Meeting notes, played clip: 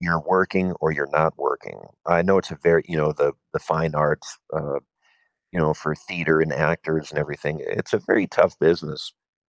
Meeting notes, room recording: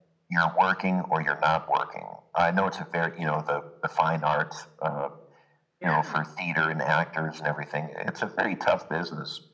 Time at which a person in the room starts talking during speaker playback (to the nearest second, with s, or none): 6 s